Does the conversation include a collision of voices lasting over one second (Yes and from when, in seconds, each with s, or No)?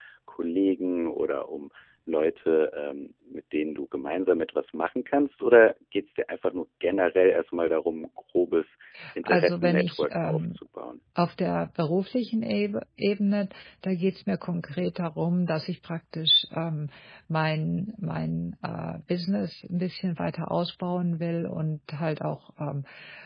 Yes, from 9.2 s